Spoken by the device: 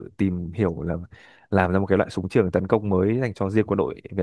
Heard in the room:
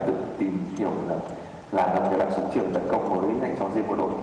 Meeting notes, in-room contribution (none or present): none